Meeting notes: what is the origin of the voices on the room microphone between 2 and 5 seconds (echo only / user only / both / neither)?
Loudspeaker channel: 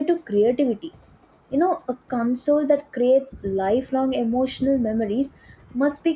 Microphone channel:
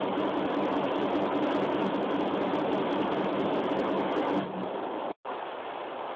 neither